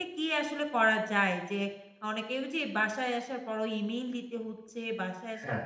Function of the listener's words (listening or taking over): listening